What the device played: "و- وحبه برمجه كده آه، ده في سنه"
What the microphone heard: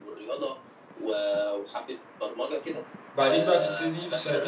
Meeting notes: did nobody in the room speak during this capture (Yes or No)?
No